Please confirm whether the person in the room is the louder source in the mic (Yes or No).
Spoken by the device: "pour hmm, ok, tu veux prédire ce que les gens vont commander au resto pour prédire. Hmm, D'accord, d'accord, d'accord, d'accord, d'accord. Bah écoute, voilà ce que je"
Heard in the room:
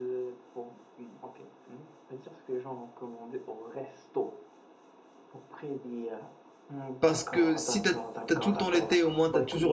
Yes